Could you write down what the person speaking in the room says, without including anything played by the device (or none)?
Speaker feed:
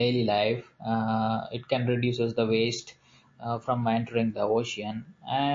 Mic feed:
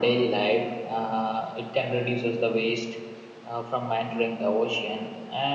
none